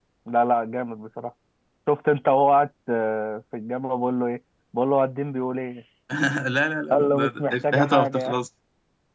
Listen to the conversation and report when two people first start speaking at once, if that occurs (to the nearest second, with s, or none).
7 s